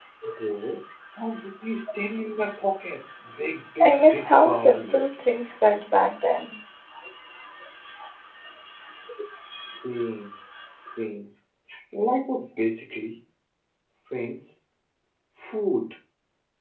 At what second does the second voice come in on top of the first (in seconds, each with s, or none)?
3.8 s